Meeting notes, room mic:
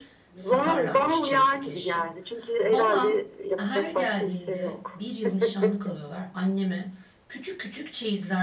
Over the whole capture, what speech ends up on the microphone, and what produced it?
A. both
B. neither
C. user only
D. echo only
A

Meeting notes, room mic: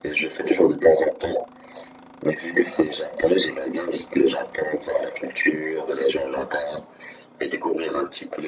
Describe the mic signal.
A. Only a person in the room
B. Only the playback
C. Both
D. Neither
B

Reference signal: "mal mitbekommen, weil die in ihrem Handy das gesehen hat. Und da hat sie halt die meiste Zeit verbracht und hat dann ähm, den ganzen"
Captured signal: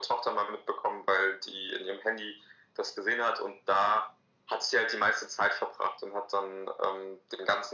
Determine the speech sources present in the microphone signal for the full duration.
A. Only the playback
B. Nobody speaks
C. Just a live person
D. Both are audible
A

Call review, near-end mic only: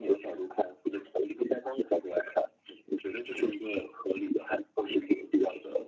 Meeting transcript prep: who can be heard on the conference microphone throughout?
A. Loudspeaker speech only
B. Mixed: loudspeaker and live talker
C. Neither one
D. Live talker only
A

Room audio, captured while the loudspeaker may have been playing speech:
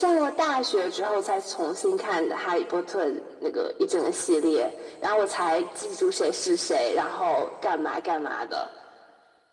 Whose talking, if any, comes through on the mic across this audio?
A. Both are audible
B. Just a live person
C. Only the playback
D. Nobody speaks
C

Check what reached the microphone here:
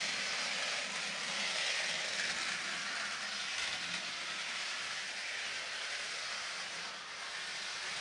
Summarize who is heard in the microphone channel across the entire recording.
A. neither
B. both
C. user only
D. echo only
A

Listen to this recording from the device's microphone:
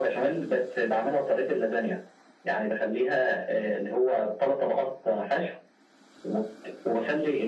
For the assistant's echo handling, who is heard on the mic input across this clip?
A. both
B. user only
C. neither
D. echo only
D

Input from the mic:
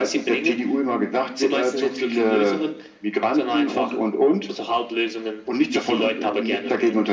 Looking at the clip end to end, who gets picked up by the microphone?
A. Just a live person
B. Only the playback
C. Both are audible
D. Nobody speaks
B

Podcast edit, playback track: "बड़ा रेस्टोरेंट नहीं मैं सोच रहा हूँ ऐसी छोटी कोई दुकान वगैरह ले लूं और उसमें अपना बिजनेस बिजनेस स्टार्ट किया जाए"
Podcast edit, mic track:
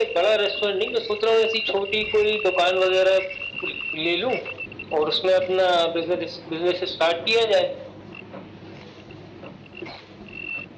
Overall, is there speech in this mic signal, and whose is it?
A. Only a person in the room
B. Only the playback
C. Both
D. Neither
B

